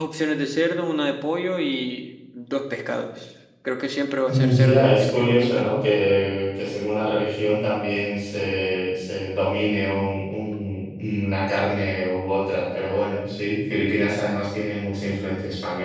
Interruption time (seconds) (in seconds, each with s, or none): 4.3 s